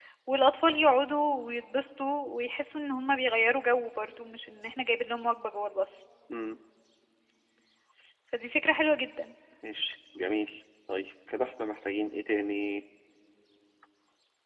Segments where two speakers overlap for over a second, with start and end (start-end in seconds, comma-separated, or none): none